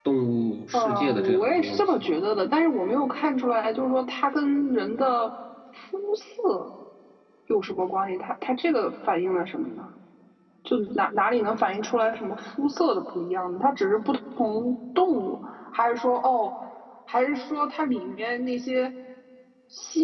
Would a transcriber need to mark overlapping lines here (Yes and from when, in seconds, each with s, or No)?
Yes, from 0.7 s